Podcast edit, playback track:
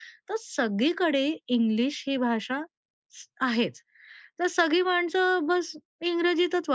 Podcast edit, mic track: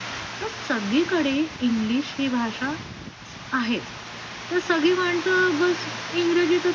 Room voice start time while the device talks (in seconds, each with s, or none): none